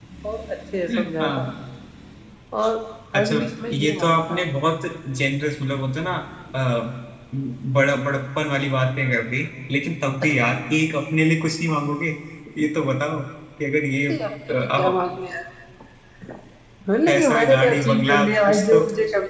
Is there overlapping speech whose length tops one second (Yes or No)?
Yes